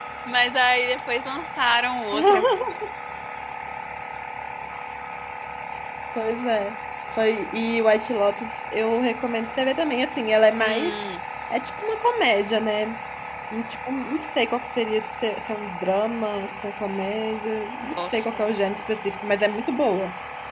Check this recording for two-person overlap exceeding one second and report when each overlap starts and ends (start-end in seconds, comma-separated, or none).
none